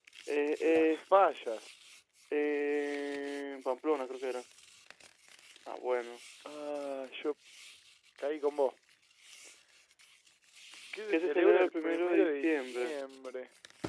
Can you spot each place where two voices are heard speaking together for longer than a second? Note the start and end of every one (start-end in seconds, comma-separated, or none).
11.1-13.0